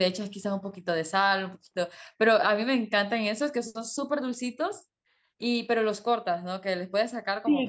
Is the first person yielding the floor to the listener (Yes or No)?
Yes